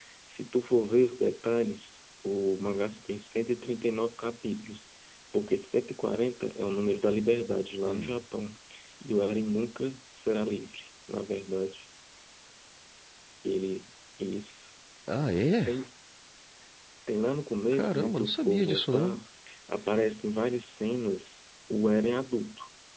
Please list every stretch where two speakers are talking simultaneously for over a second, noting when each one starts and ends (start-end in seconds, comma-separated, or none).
17.7-19.2